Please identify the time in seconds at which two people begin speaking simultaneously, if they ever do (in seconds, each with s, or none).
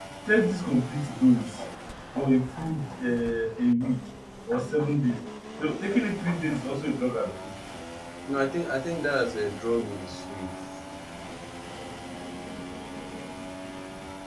none